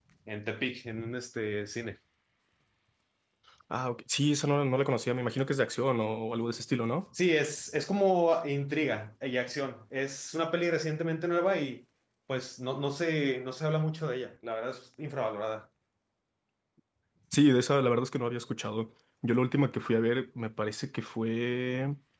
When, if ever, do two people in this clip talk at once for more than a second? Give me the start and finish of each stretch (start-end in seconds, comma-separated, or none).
none